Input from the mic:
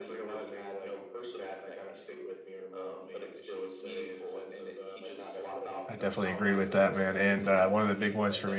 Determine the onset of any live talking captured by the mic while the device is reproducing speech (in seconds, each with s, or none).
5.9 s